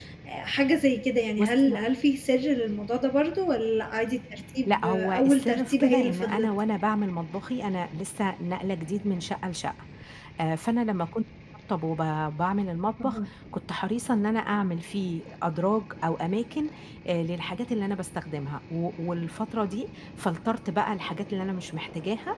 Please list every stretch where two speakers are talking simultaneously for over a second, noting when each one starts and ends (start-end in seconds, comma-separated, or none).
4.7-6.5